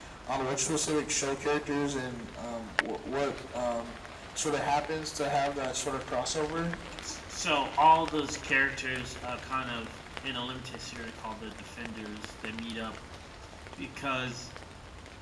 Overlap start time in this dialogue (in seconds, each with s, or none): none